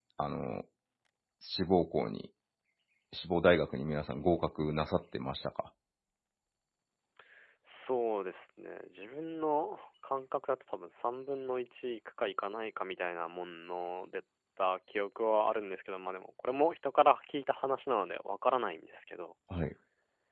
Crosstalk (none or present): none